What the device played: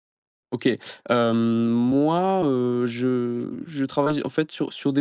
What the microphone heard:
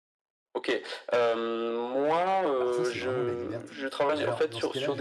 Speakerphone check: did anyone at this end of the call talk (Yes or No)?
Yes